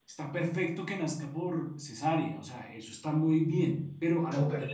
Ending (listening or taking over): listening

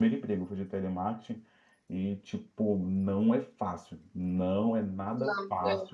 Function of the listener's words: listening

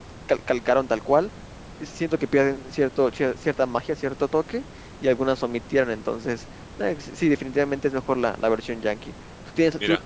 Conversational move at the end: listening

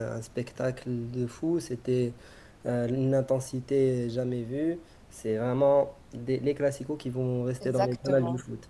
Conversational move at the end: taking over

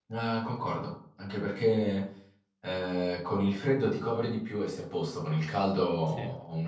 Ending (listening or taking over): listening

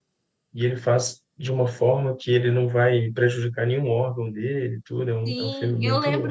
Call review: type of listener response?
taking over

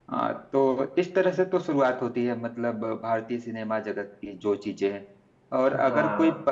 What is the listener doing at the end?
listening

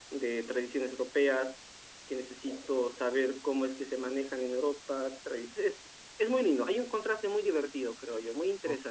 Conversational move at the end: taking over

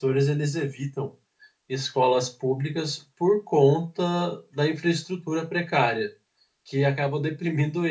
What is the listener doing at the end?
listening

